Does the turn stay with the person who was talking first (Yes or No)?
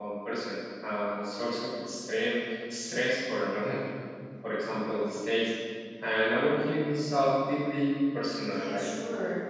No